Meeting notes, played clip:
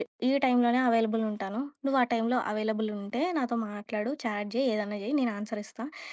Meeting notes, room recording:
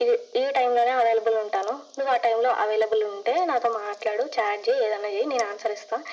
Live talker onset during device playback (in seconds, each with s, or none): none